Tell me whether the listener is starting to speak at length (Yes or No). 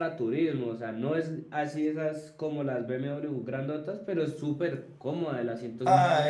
Yes